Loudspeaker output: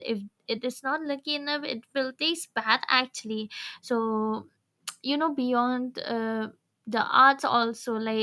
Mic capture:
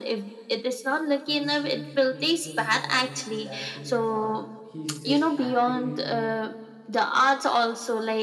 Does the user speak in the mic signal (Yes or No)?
Yes